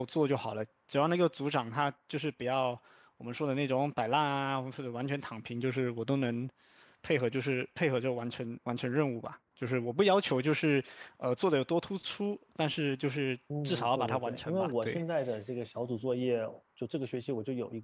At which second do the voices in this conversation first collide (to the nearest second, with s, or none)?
14 s